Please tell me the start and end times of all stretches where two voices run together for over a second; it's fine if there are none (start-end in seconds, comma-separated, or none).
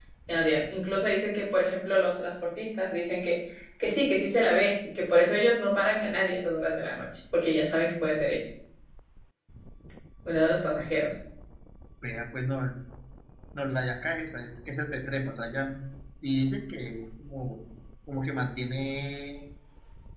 none